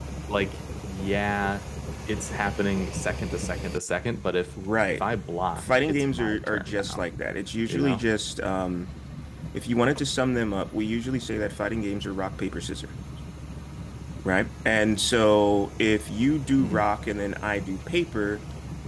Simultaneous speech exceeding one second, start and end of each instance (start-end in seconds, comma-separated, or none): 5.6-7.0